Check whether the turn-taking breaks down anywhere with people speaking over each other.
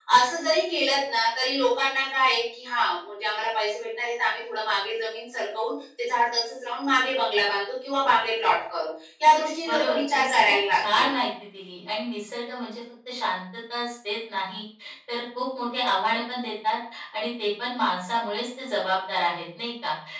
Yes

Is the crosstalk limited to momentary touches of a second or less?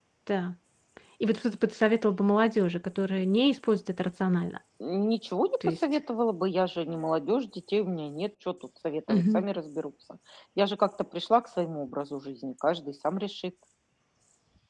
Yes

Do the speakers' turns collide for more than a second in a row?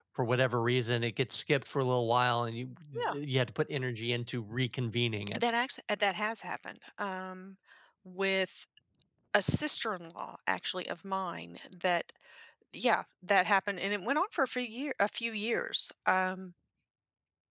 No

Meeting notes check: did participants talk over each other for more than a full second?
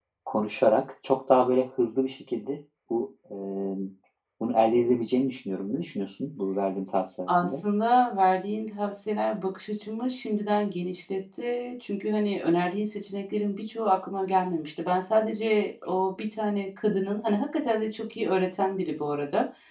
No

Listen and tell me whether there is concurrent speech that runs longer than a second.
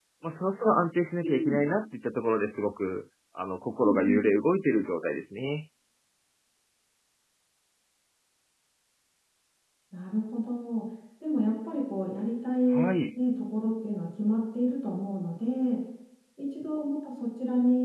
No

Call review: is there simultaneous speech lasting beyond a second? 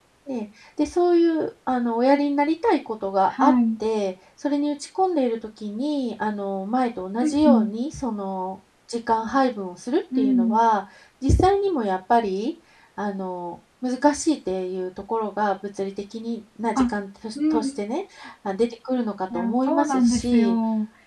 Yes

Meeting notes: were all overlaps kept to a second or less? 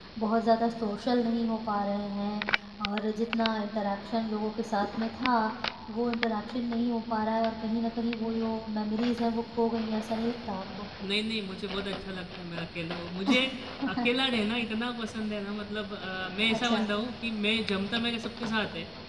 Yes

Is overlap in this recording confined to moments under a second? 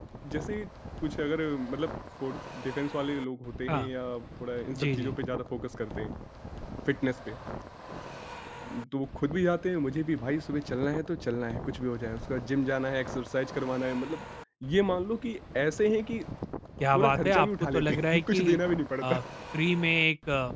No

